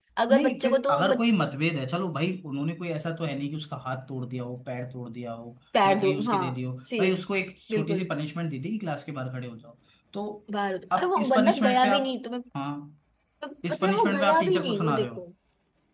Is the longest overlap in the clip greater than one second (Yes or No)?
Yes